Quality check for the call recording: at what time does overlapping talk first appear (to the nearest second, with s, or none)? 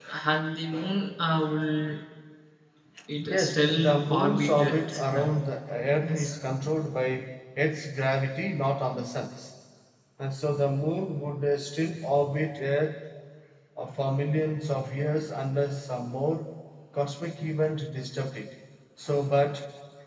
3 s